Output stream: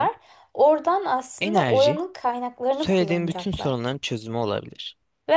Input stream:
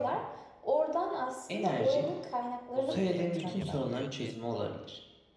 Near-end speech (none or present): present